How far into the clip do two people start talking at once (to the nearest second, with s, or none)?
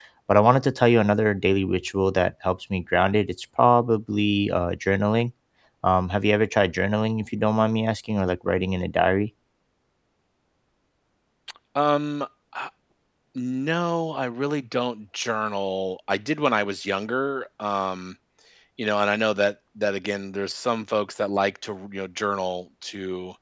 none